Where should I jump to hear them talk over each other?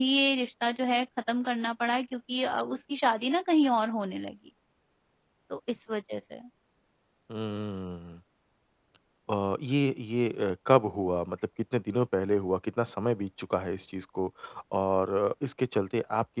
none

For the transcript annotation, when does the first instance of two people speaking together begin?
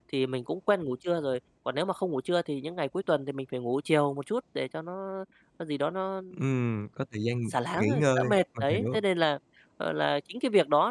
7.8 s

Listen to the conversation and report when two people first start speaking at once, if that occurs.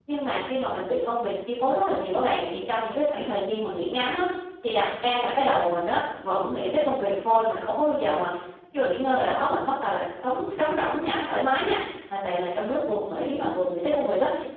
none

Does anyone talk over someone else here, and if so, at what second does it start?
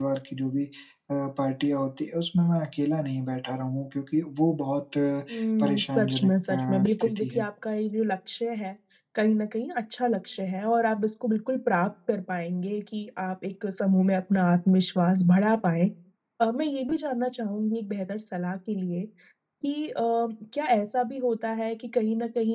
5.6 s

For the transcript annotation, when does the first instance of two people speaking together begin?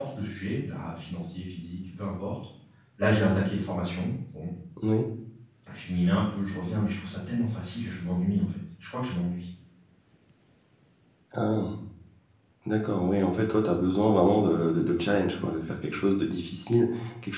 none

